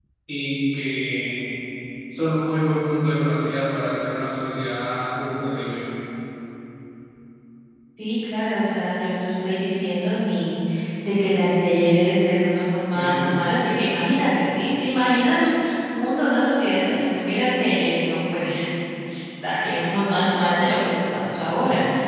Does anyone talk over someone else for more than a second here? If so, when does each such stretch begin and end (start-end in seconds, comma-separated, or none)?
none